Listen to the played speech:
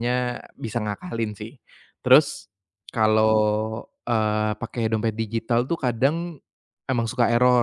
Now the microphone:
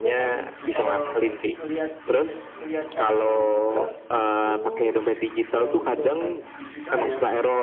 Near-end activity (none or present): present